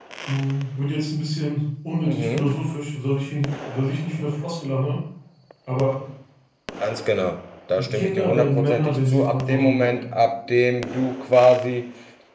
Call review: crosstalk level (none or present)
present